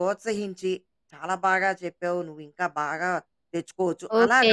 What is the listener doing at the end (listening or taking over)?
taking over